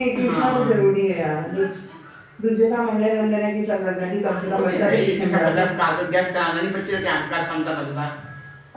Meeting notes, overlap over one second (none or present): present